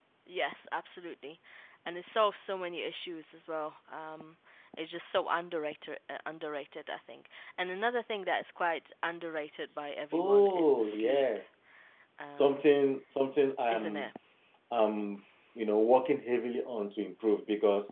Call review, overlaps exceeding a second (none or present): present